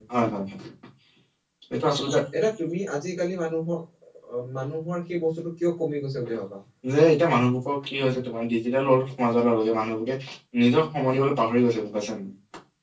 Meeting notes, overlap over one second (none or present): none